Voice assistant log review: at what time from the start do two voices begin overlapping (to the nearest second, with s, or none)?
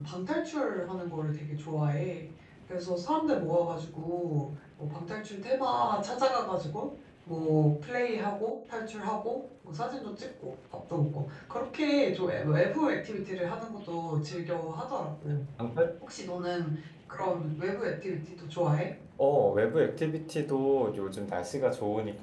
none